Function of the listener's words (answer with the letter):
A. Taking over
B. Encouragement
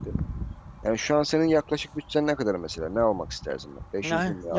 A